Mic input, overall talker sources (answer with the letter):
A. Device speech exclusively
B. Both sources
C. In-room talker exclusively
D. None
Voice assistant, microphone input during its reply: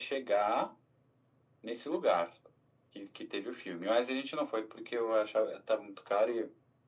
A